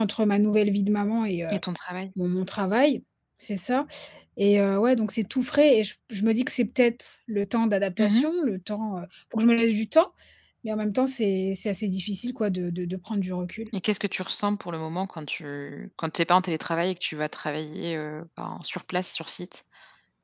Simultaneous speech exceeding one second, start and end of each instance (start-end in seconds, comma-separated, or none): none